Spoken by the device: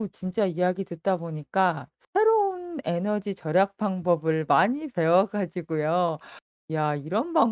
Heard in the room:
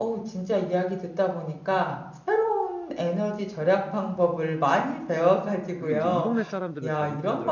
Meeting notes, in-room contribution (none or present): present